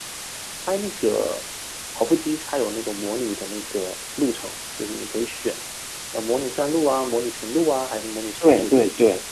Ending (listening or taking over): taking over